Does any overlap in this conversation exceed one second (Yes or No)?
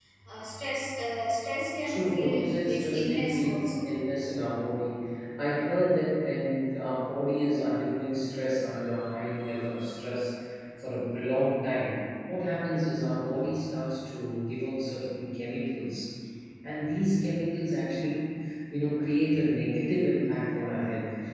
Yes